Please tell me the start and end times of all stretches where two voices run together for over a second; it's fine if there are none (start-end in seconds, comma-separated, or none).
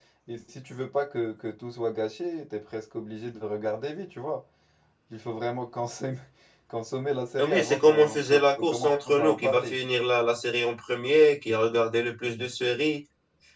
7.4-9.8